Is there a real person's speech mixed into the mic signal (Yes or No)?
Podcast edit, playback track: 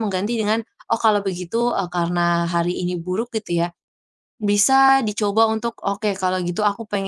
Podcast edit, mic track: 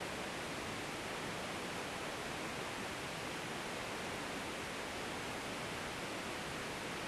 No